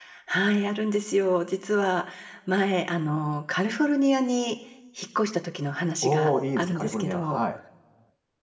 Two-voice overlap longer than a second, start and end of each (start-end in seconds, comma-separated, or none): 6.0-7.4